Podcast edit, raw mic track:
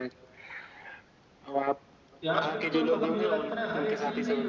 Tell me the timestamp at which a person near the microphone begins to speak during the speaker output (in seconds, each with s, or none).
2.2 s